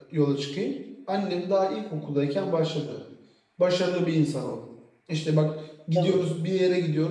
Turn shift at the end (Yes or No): No